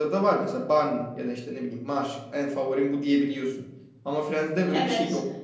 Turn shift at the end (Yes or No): Yes